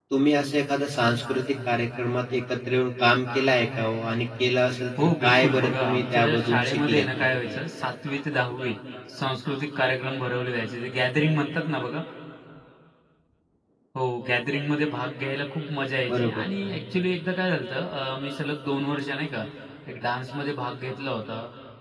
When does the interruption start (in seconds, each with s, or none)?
5.0 s